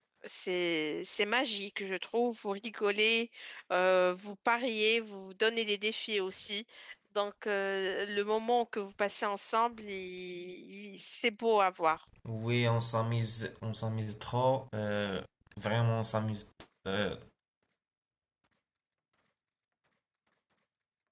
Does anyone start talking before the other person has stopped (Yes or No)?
No